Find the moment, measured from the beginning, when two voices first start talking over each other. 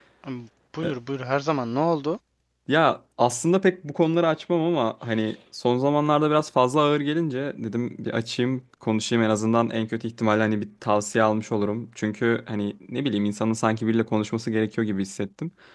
none

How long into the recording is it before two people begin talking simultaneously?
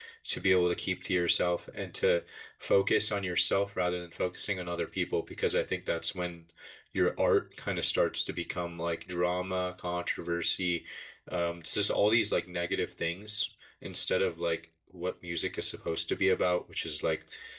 none

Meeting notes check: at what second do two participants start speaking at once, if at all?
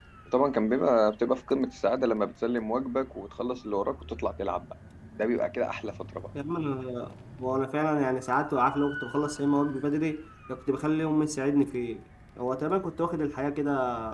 none

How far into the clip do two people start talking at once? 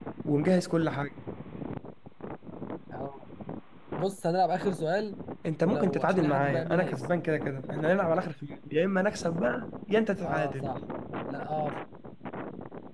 5.6 s

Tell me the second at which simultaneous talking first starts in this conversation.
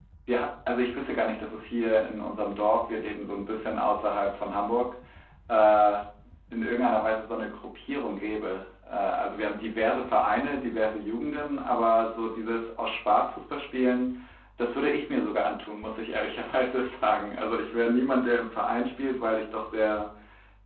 none

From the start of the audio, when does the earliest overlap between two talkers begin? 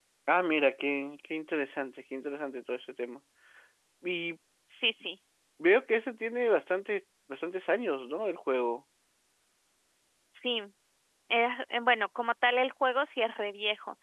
none

